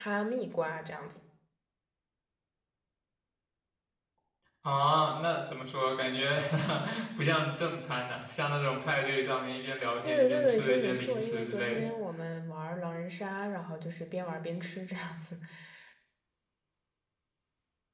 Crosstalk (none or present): present